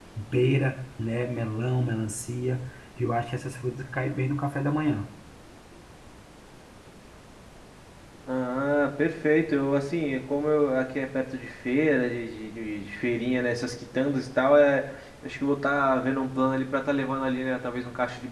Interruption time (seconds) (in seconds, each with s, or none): none